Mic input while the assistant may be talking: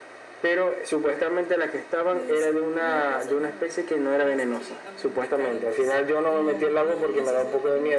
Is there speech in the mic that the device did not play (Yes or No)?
Yes